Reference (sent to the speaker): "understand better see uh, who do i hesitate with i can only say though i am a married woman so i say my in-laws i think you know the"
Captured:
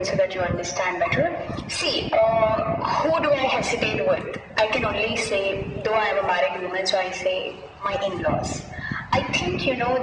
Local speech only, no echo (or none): none